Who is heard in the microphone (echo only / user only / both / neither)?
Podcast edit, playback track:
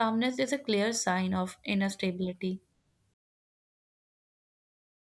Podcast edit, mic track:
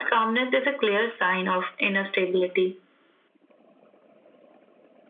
echo only